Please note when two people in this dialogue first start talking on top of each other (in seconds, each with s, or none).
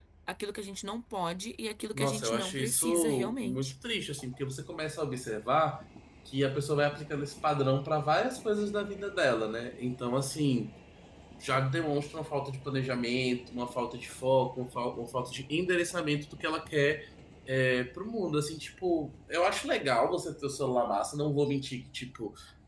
2.0 s